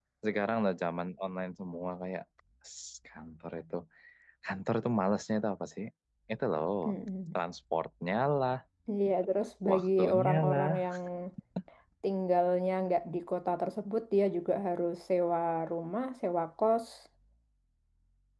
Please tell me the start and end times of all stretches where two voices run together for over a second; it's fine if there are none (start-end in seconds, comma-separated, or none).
9.7-10.9